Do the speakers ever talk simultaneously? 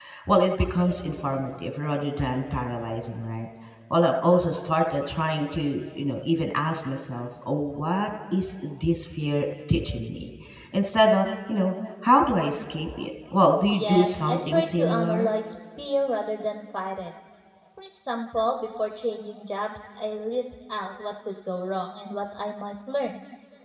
Yes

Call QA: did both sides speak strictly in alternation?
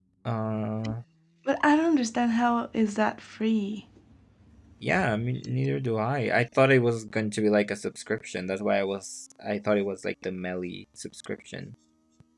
Yes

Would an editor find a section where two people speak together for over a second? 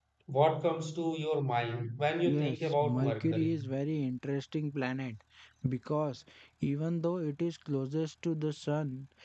Yes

